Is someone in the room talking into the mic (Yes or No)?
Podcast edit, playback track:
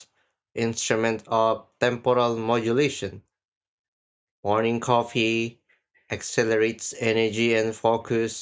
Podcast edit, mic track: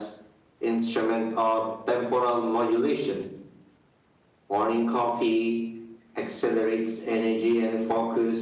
No